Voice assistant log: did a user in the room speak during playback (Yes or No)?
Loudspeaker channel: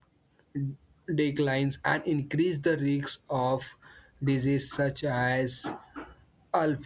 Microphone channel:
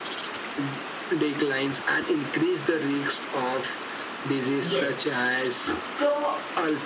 Yes